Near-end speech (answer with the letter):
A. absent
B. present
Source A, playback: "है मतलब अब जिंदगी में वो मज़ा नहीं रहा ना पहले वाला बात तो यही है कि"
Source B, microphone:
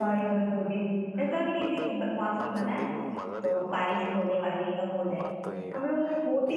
B